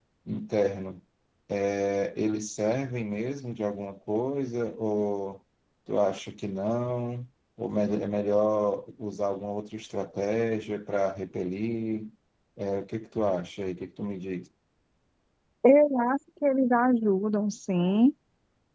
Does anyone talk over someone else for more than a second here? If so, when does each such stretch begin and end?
none

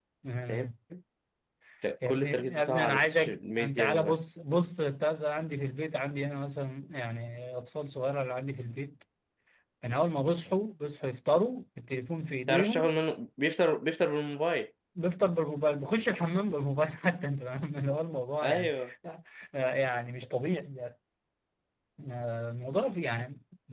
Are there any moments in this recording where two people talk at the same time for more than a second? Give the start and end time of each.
2.1-4.2

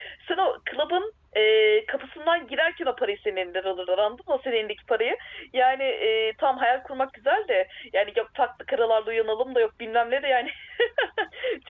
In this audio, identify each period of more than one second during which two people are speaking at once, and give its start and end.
none

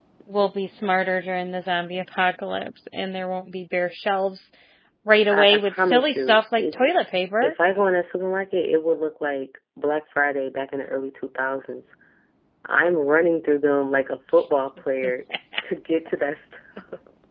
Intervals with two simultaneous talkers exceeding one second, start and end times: 5.3-6.9

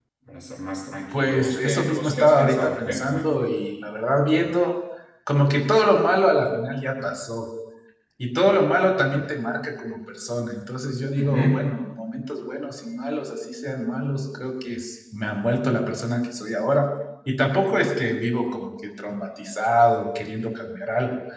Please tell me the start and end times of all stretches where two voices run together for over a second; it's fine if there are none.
1.1-3.3

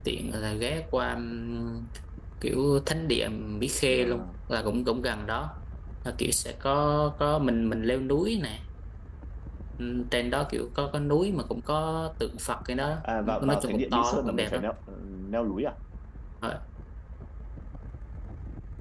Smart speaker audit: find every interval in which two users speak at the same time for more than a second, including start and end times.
13.2-14.6

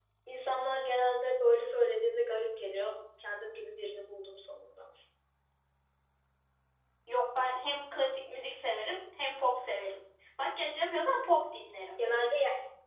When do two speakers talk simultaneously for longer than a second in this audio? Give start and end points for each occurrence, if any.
none

